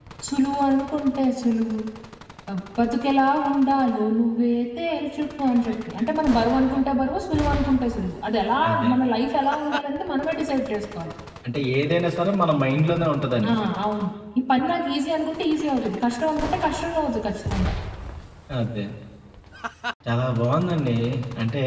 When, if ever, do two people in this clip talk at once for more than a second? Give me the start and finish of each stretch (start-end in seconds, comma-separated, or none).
none